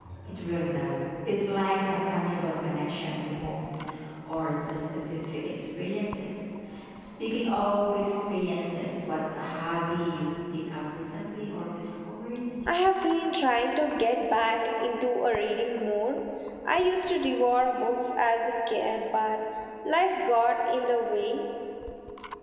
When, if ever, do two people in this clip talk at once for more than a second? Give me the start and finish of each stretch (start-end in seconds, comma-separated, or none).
none